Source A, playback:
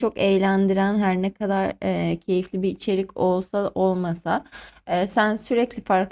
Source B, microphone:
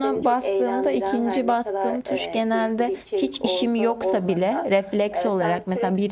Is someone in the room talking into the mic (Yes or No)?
Yes